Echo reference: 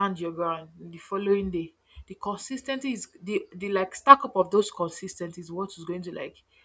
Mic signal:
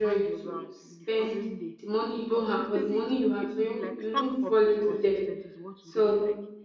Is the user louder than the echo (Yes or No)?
Yes